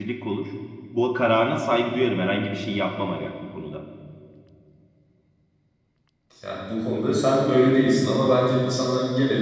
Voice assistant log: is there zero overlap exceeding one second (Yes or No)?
Yes